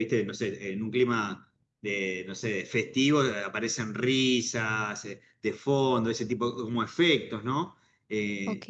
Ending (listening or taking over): listening